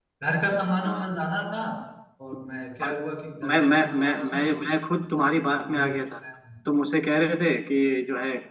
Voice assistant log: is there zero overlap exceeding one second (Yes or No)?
No